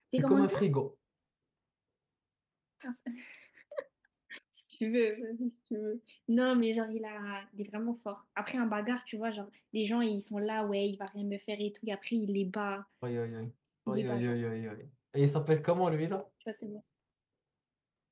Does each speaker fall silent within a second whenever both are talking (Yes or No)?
Yes